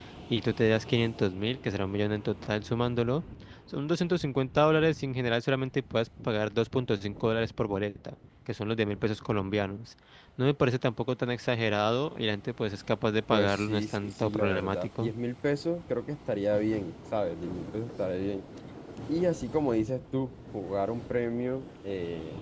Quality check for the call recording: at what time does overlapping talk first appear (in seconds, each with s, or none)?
13.3 s